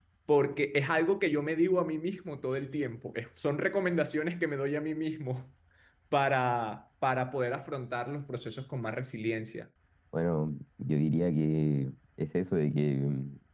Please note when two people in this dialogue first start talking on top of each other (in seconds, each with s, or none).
none